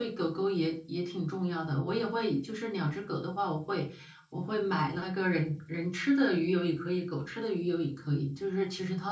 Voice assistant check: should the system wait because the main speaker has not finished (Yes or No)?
Yes